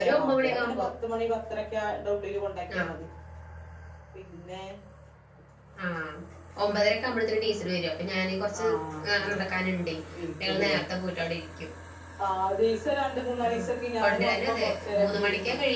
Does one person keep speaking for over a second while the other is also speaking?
Yes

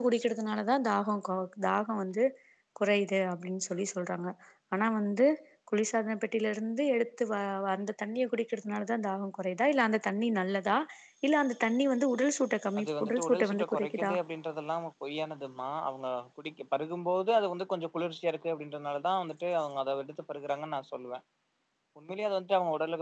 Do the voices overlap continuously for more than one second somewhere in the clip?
Yes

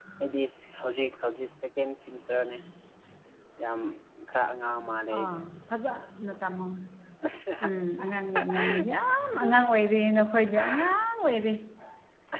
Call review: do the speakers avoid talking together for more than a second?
Yes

